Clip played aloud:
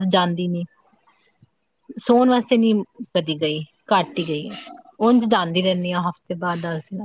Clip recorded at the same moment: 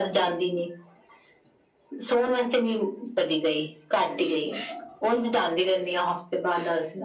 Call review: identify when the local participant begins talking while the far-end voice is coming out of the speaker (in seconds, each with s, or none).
none